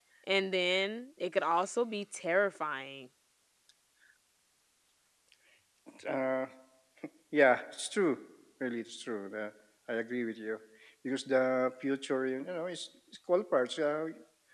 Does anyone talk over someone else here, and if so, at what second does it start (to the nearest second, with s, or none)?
none